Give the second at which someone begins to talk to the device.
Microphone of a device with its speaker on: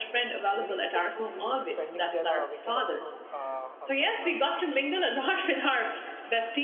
0.6 s

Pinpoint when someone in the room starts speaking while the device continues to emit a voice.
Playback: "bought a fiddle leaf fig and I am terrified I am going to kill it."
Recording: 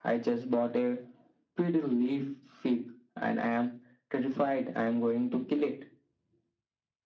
none

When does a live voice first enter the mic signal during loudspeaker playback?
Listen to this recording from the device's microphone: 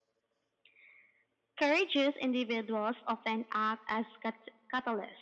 none

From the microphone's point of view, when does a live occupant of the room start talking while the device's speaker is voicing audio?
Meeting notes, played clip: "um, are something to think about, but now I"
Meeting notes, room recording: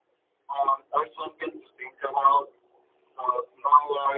none

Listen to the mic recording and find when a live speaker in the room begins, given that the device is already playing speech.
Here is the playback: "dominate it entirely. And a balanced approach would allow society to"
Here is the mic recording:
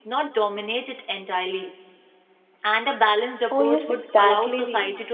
3.5 s

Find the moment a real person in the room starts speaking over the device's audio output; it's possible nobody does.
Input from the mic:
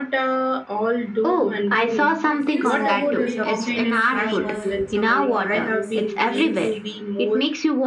2.2 s

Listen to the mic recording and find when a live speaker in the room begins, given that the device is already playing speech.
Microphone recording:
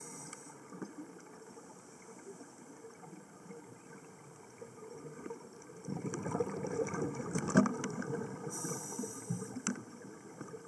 none

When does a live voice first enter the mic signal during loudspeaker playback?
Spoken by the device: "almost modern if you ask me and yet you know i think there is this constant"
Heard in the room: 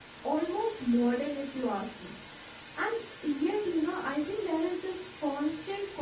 none

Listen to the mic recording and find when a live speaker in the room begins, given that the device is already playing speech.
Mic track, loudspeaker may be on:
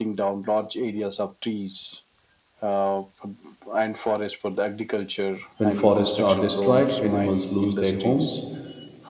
5.5 s

